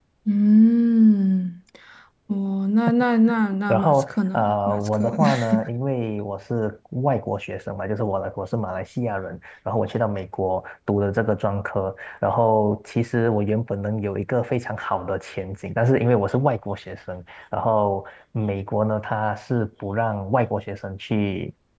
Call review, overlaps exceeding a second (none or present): present